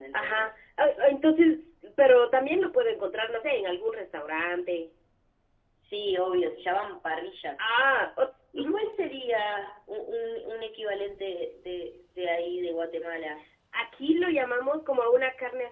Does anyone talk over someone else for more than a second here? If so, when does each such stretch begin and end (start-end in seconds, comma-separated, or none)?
none